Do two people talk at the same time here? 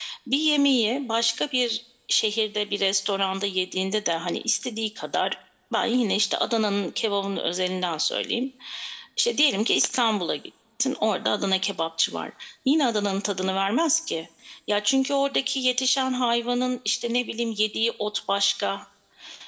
No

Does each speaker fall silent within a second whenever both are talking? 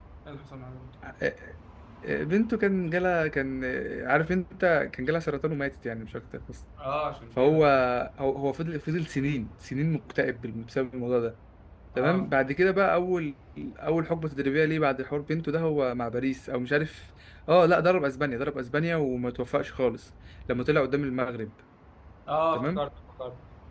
Yes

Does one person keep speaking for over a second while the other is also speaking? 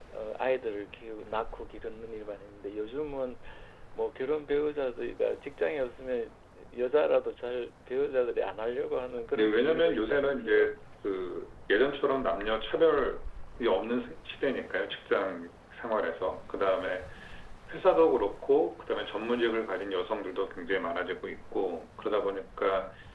Yes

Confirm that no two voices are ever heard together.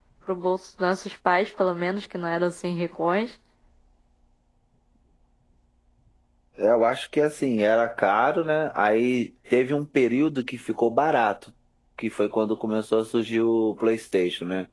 Yes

